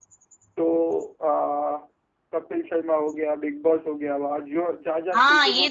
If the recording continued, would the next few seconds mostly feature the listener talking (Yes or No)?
Yes